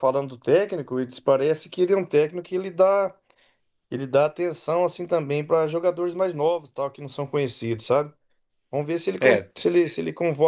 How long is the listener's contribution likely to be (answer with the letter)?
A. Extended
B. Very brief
B